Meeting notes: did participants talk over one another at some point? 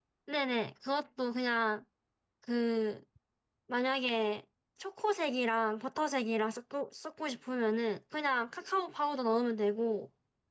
No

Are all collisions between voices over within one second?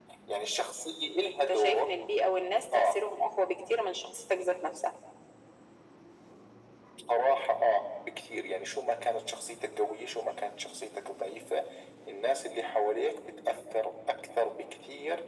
Yes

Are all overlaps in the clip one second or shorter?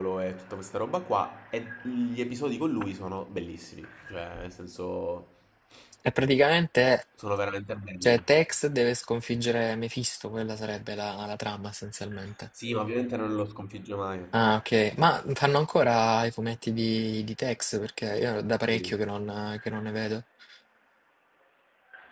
Yes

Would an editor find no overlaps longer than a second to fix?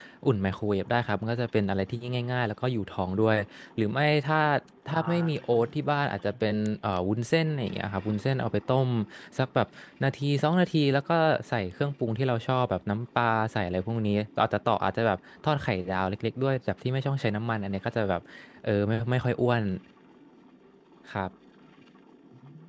No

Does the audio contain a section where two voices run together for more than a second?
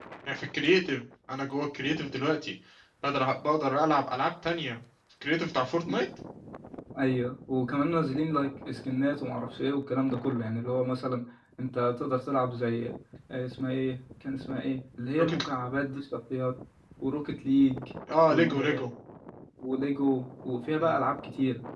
No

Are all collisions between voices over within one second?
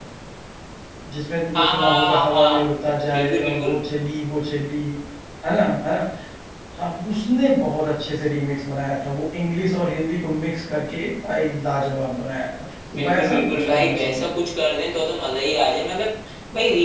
No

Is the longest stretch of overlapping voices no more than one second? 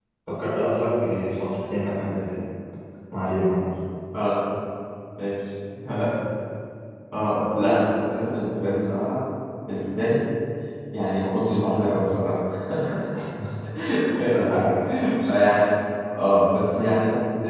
Yes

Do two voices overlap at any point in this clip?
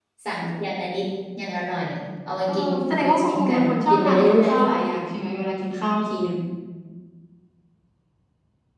Yes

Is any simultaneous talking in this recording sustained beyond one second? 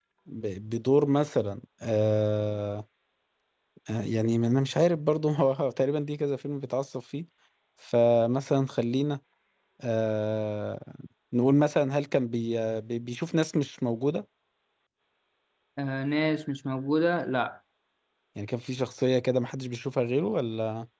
No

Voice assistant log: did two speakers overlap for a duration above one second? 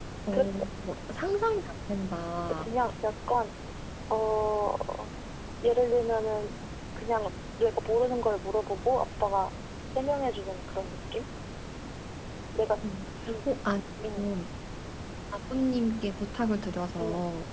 No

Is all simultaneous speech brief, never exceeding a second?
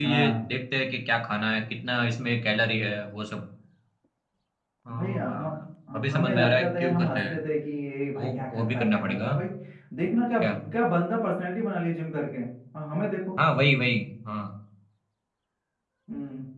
No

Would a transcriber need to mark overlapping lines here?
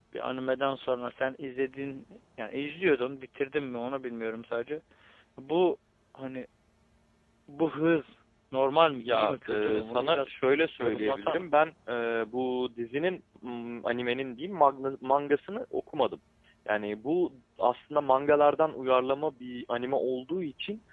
Yes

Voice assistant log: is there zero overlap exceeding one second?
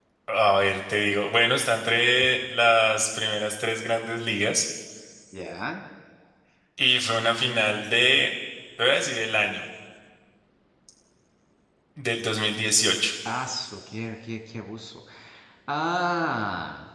Yes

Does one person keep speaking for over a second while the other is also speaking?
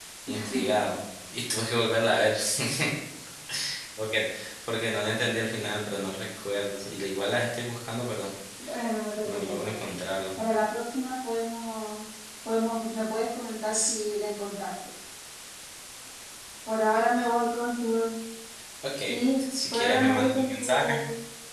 Yes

